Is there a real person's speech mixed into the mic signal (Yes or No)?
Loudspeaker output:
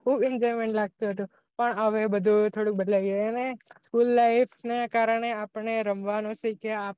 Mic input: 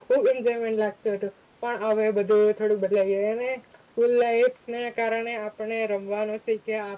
No